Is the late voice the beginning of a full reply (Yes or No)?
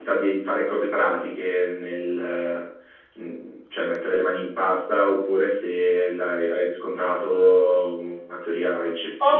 Yes